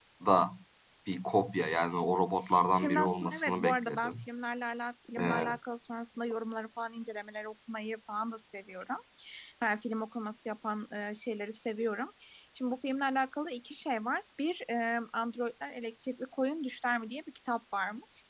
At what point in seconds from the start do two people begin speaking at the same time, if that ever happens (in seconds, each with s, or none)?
2.7 s